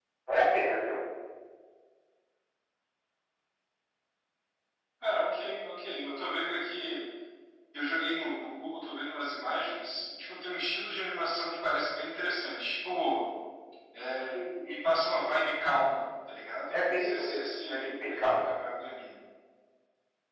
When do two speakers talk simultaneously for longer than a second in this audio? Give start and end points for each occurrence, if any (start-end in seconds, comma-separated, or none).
16.7-18.5